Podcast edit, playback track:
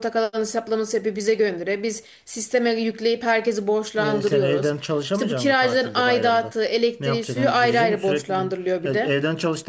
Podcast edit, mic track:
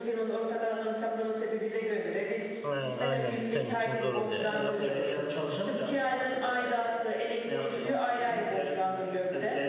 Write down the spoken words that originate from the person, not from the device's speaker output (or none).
Aynen, aynen senin için zor oluyor. ya. Yapacak bir şey yok.